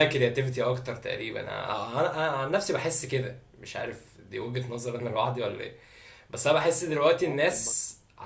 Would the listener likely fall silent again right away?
Yes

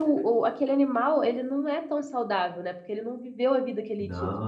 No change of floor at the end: Yes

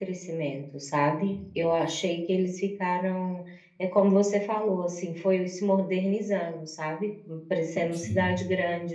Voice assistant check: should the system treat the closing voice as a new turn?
No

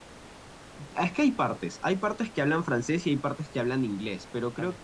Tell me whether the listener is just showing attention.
Yes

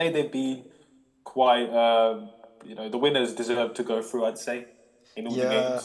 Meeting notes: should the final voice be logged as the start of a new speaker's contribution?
Yes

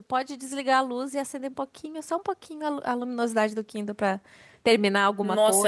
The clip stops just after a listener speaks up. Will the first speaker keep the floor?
No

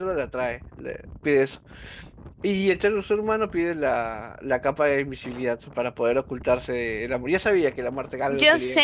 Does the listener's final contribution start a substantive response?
Yes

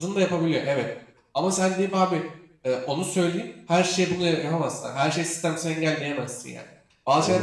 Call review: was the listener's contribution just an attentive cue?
Yes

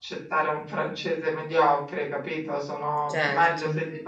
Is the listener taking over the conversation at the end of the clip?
No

